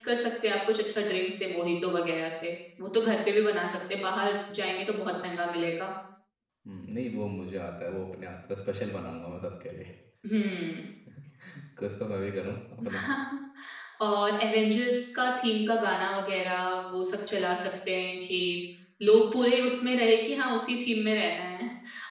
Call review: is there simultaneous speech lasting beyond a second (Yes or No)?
No